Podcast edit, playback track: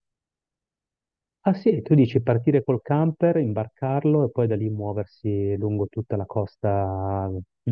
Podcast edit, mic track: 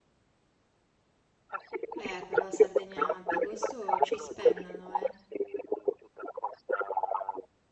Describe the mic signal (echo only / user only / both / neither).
both